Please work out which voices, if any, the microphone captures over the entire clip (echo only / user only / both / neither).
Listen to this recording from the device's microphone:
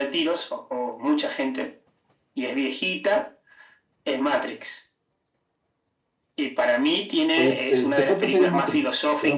both